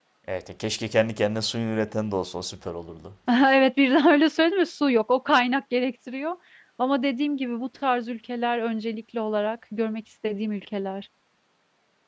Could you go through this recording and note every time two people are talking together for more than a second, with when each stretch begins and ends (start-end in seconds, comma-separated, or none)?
none